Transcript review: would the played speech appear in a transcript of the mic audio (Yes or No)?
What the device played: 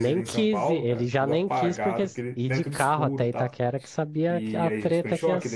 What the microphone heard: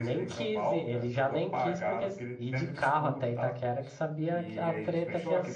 Yes